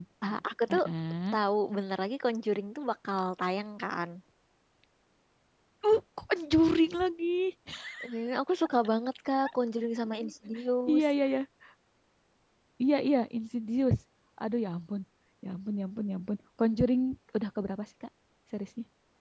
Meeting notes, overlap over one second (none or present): none